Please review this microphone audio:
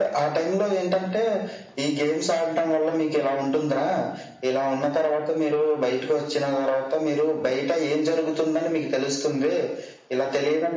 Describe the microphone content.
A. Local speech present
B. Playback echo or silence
B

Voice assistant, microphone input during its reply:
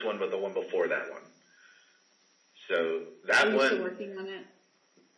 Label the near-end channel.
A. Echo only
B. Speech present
B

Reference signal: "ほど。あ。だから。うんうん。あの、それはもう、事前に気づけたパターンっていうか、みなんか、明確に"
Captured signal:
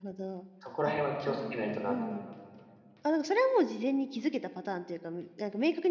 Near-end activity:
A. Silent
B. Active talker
B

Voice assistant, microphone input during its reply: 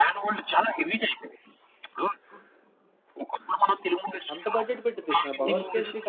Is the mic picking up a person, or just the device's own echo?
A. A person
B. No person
A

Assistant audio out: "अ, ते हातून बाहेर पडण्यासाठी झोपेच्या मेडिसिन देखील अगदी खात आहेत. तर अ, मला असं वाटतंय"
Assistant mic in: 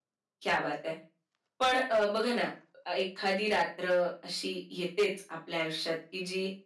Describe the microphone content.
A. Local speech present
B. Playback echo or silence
A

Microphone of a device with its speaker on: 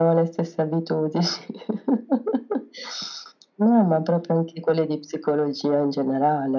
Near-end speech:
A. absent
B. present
A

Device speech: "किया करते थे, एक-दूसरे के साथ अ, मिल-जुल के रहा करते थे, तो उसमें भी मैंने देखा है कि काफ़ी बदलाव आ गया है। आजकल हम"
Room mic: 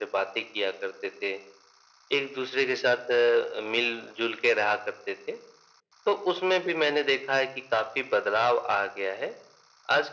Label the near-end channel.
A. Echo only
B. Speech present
A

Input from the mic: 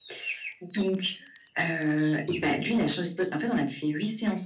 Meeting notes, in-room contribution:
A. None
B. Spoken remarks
B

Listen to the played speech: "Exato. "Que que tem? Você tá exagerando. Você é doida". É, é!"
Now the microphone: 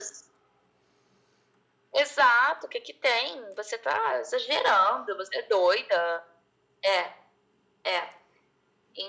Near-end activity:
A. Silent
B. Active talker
A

